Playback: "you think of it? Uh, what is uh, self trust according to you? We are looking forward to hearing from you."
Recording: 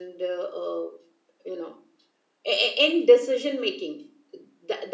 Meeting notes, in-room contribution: present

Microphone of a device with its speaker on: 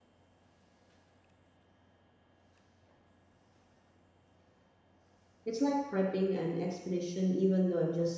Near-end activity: present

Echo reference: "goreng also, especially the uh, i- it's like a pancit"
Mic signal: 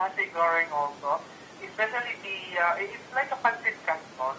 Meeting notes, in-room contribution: none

